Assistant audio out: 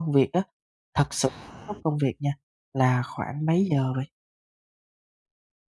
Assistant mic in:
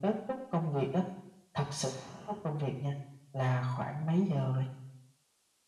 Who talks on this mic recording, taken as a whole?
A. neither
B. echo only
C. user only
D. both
B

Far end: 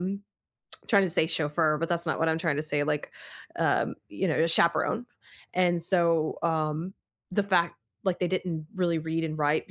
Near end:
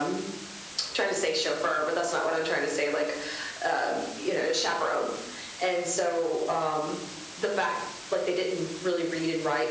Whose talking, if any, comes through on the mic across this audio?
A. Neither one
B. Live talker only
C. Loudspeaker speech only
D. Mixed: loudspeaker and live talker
C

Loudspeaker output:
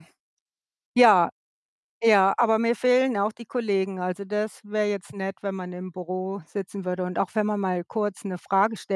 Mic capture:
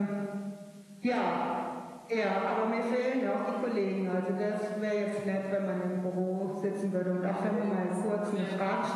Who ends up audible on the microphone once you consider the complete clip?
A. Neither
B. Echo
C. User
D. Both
D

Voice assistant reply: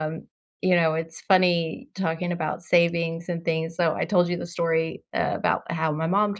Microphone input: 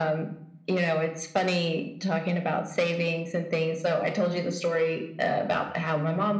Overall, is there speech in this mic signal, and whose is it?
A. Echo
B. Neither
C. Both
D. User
A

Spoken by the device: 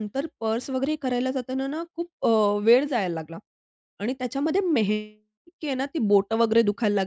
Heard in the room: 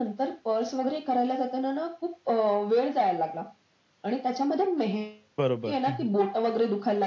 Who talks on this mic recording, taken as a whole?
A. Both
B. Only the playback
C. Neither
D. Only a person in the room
A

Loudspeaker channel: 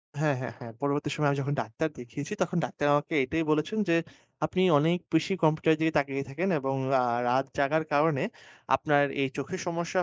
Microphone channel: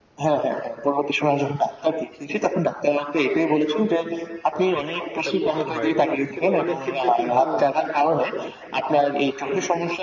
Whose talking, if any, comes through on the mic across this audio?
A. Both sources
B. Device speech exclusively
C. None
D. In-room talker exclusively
A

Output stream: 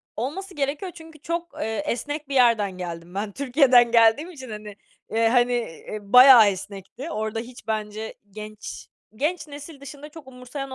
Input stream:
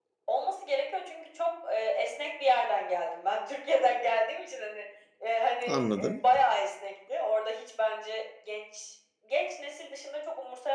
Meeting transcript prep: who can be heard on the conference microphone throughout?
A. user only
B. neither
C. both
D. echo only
C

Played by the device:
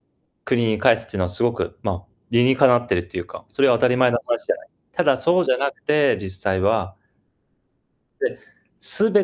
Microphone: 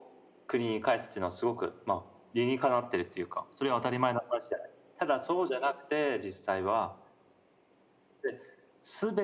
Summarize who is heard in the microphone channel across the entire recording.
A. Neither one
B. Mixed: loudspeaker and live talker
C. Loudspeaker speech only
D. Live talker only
C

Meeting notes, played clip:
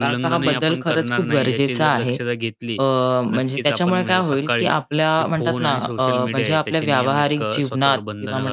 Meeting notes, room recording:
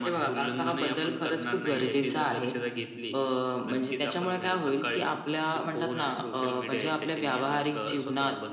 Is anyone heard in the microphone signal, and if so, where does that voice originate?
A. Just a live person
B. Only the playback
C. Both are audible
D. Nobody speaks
B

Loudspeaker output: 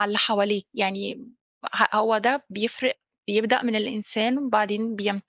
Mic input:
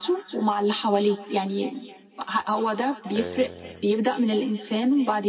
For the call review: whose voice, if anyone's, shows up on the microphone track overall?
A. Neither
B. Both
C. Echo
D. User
B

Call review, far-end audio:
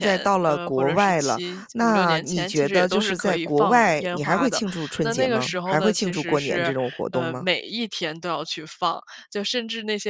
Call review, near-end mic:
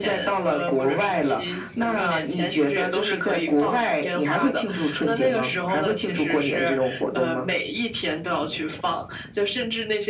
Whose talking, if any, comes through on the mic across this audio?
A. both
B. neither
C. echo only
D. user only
C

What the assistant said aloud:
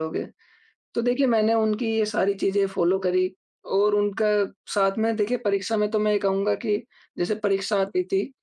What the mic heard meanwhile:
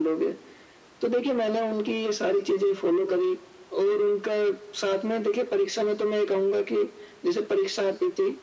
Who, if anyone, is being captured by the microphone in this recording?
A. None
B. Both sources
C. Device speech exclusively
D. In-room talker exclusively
C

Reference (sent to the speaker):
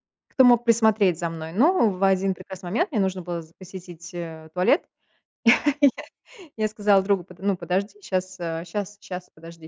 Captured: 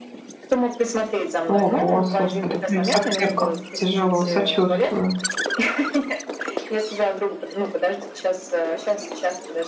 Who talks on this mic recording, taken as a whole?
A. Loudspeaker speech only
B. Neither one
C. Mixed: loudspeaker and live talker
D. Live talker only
C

